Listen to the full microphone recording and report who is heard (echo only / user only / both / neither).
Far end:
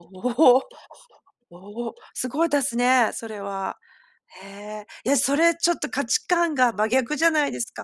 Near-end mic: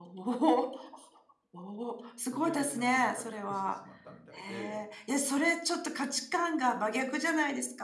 both